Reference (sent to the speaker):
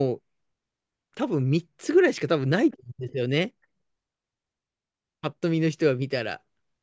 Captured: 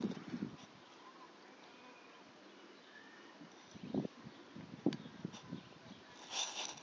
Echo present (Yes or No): No